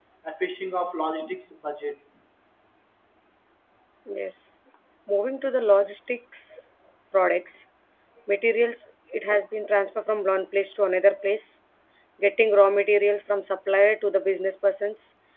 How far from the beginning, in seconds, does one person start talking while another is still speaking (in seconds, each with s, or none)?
none